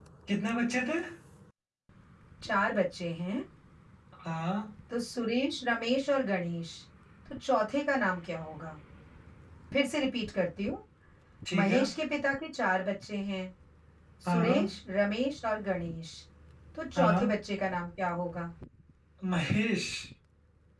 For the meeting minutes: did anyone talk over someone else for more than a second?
No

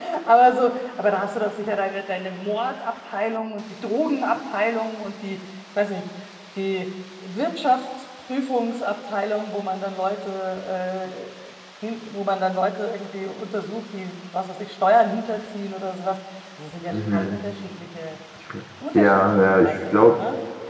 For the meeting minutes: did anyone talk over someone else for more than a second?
Yes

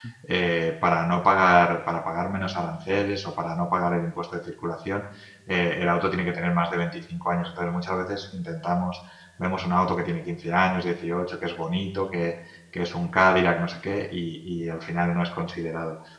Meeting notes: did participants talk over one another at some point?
No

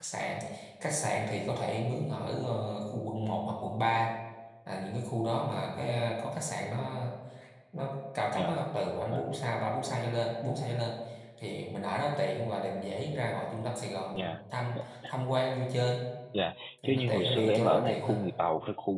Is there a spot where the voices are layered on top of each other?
Yes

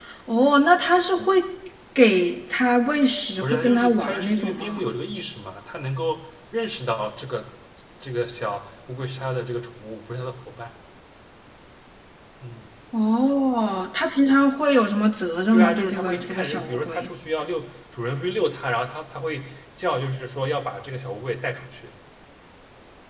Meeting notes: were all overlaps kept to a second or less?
No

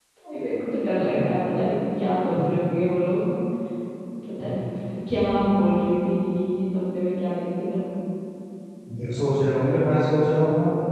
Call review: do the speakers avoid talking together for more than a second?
Yes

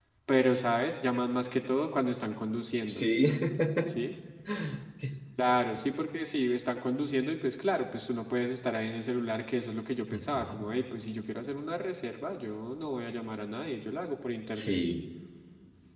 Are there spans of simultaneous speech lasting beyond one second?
No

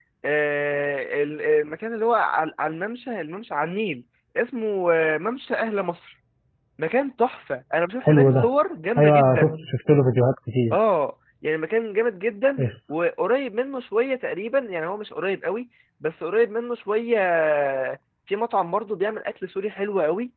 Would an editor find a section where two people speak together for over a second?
No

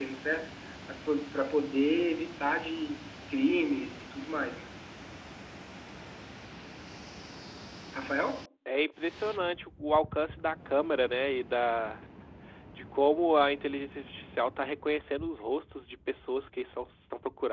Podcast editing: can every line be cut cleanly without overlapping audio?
Yes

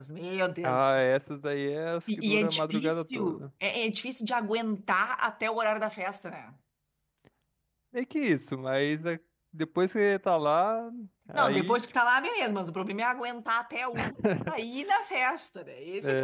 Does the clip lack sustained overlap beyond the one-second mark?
No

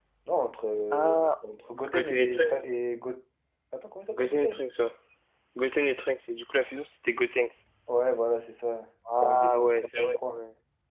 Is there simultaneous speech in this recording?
Yes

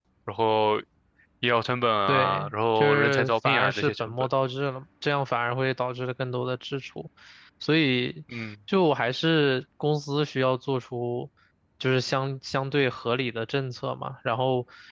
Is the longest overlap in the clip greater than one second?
Yes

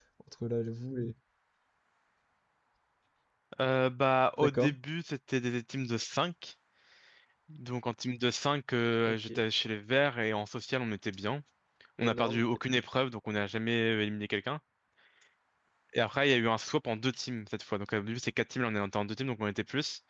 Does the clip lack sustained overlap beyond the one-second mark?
Yes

